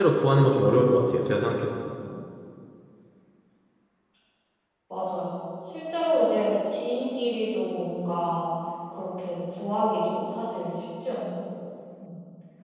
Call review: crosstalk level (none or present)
none